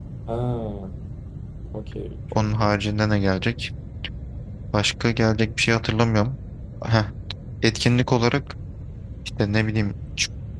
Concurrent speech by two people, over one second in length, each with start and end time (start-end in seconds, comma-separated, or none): none